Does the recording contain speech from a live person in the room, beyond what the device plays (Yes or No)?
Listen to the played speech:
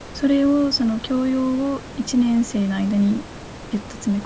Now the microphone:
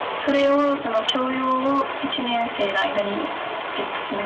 No